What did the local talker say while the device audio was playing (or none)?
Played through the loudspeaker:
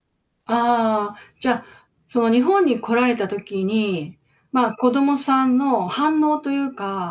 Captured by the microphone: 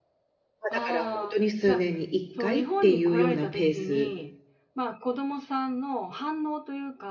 ま、だからほんとに数年に1回っていうようなペース